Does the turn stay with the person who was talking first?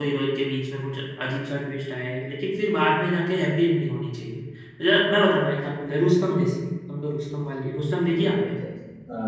No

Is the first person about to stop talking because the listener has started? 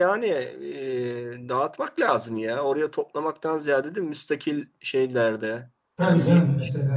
Yes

